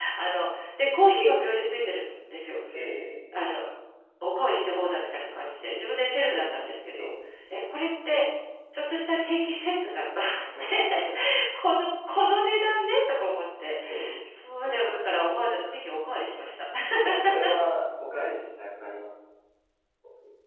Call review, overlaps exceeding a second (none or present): none